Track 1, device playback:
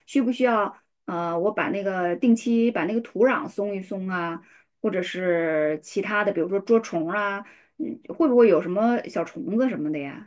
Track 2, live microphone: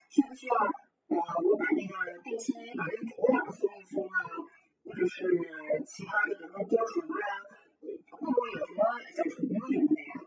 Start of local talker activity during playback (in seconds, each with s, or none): none